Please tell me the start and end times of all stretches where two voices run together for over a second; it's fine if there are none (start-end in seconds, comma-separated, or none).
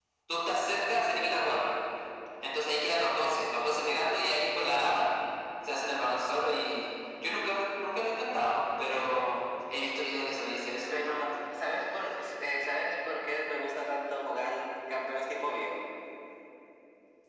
none